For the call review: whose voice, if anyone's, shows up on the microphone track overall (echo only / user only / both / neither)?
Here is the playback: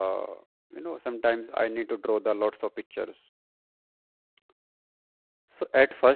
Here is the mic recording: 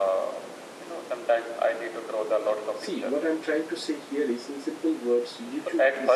both